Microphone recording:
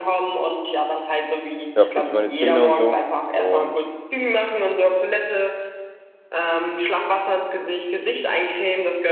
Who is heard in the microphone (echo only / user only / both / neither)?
both